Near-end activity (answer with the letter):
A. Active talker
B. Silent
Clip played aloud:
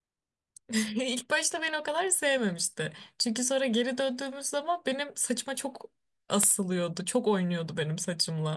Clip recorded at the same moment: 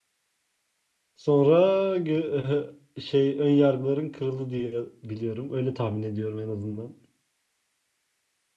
A